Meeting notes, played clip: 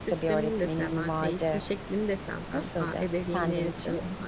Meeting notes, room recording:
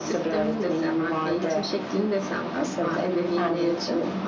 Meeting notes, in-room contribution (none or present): none